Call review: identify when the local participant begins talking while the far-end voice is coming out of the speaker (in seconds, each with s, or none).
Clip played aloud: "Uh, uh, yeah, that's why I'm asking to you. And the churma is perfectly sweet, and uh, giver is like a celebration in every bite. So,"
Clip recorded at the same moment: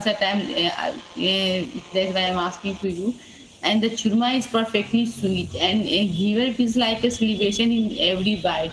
none